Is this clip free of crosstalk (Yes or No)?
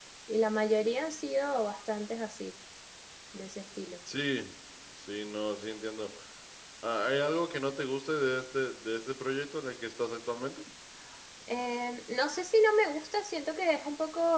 Yes